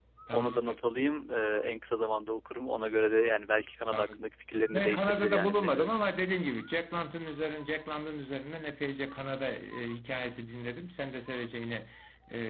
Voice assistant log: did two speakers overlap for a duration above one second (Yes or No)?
Yes